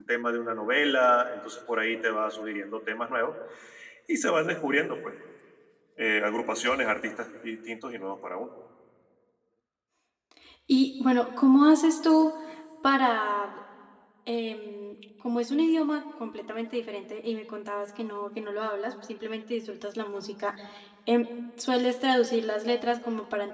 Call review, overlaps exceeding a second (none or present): none